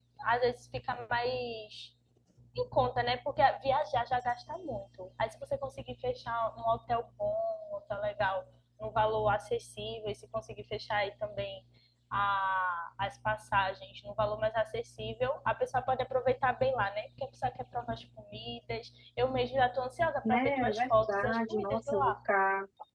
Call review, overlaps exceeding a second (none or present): present